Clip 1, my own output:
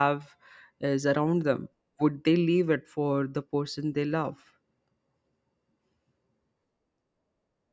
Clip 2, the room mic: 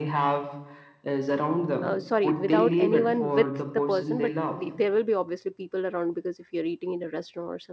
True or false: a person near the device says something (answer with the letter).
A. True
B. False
A